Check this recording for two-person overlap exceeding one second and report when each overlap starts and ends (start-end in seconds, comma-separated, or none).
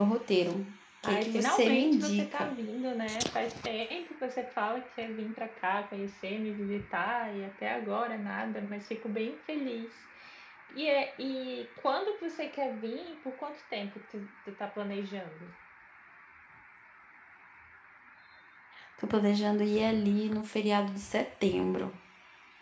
1.0-2.5